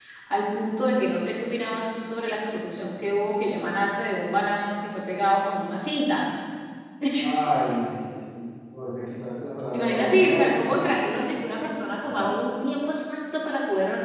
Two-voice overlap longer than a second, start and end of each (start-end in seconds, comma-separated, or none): 9.7-11.0